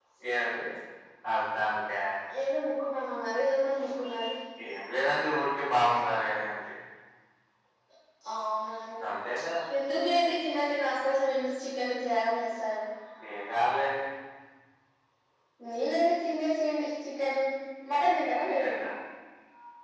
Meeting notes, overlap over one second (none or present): none